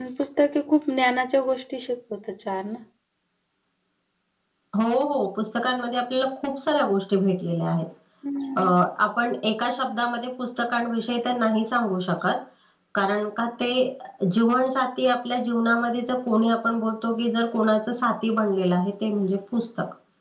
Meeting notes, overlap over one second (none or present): none